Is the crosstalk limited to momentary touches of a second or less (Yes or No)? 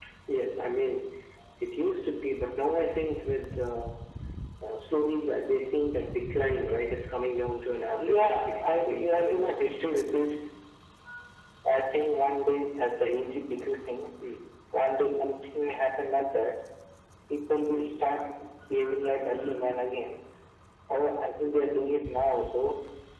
No